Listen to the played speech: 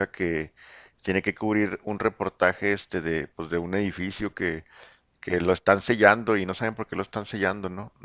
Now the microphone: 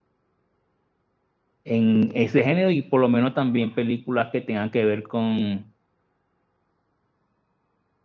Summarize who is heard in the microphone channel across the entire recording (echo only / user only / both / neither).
user only